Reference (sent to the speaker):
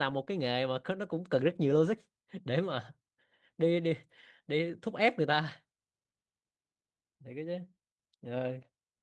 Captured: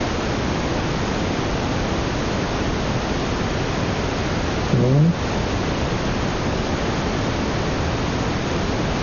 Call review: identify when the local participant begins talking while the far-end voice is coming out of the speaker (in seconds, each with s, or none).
4.7 s